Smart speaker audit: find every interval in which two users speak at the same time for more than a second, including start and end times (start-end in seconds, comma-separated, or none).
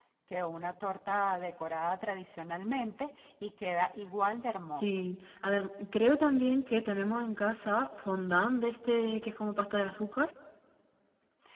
none